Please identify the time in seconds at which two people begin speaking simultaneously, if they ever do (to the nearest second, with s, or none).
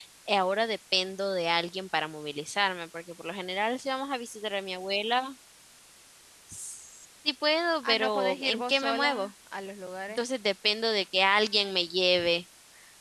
8 s